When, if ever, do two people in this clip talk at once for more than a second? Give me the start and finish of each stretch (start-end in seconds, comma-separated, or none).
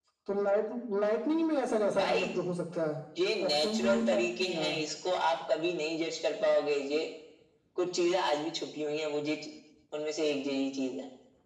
3.4-4.8